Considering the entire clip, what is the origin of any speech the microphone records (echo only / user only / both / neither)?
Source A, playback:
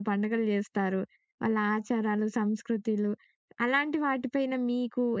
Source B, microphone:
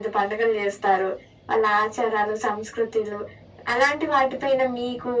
echo only